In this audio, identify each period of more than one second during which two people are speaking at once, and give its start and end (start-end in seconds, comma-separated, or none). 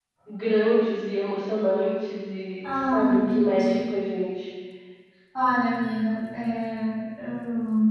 2.7-3.9